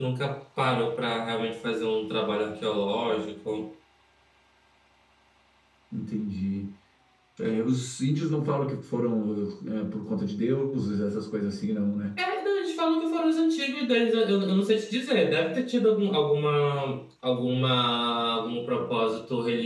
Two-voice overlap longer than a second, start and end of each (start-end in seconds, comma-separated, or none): none